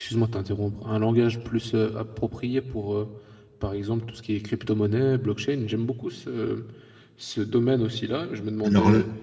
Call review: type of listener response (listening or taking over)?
listening